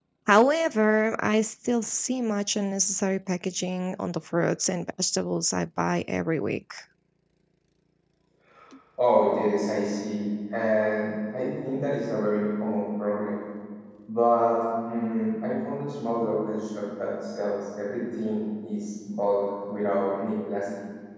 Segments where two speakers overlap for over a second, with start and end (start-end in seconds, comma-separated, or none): none